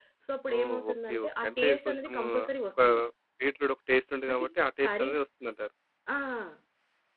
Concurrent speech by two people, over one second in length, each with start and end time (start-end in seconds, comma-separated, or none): 0.6-2.2